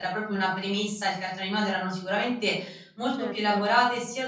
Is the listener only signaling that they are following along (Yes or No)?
Yes